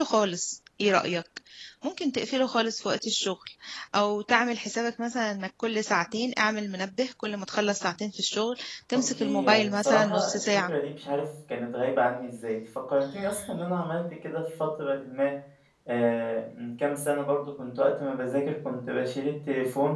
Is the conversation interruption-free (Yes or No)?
No